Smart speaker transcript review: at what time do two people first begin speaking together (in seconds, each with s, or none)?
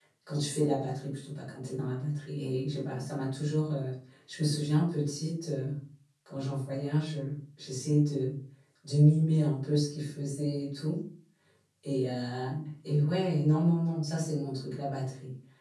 none